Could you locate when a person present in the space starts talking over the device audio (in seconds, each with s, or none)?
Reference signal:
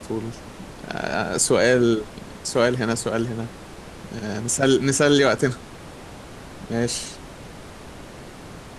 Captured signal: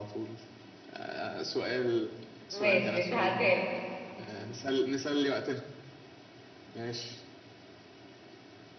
2.5 s